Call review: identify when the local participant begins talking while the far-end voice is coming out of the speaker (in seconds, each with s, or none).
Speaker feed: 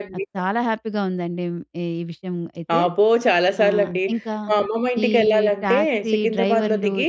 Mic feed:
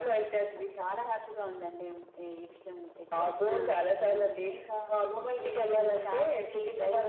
3.5 s